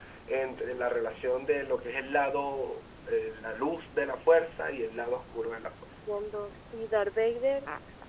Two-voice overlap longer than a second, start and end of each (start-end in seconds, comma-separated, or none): none